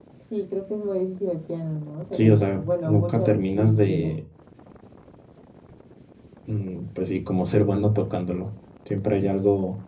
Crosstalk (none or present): present